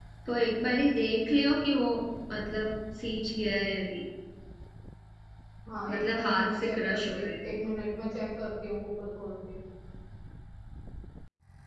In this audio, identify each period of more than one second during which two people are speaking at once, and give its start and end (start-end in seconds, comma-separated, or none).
5.9-7.3